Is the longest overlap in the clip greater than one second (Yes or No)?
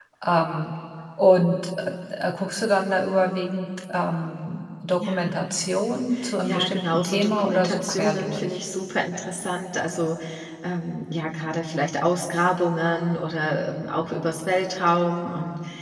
Yes